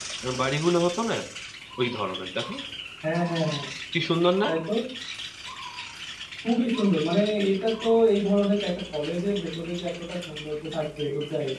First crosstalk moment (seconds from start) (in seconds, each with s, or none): none